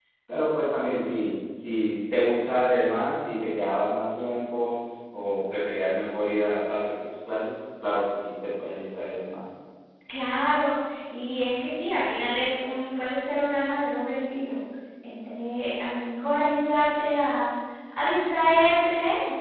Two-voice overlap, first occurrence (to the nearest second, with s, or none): none